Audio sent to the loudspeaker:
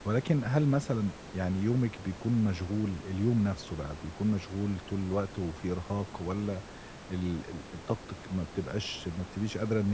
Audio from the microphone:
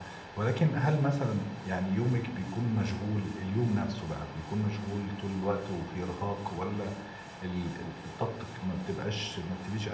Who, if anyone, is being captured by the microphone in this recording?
echo only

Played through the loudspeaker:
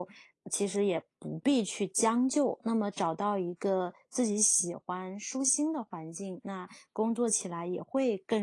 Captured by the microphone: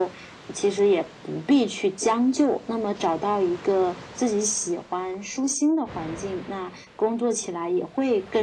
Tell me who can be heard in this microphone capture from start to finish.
echo only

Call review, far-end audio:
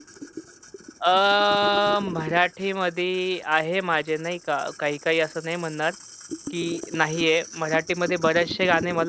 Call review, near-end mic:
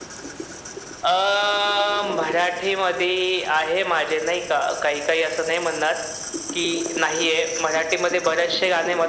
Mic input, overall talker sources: echo only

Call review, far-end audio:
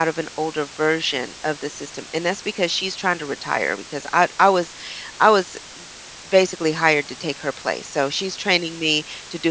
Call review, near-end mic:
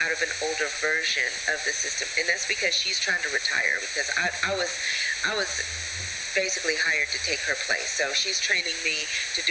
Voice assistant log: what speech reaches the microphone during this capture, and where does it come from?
echo only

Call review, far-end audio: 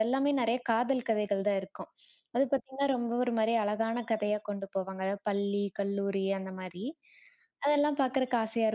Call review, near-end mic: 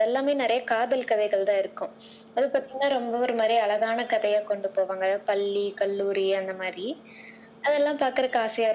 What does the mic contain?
echo only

